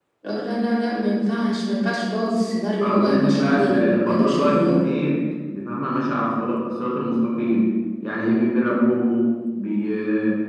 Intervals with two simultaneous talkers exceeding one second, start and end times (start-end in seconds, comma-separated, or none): 2.8-4.9